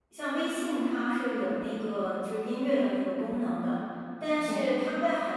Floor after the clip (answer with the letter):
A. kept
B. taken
A